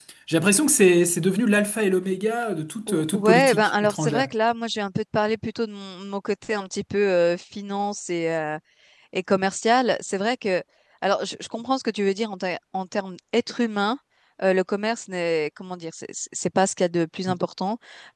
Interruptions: present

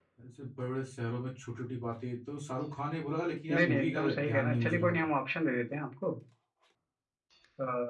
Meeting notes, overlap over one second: present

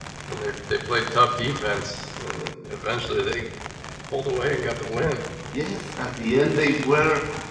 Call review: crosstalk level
none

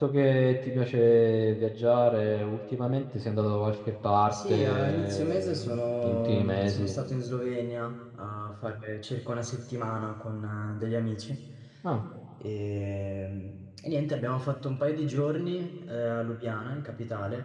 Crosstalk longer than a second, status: present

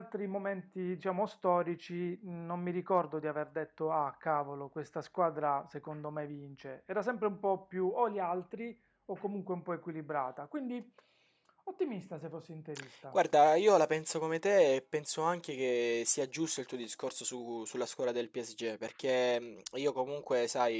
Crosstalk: none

